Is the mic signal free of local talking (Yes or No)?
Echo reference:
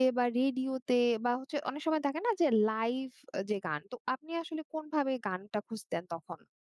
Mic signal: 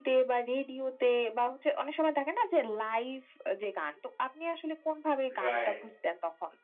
No